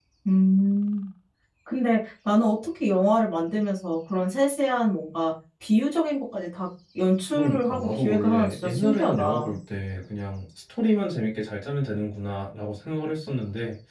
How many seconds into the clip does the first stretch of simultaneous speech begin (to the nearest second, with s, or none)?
7 s